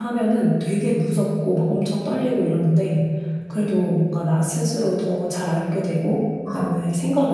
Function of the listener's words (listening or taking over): listening